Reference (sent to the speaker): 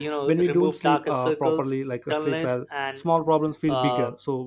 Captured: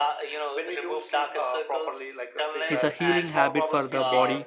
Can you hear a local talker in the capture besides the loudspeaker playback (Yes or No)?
Yes